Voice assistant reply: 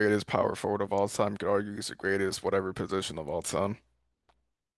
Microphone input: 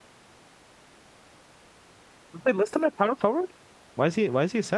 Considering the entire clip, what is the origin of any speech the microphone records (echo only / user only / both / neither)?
user only